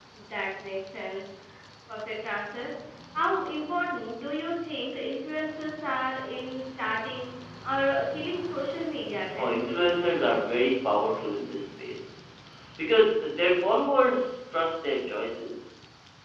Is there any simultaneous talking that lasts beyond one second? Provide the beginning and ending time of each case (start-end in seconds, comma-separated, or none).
none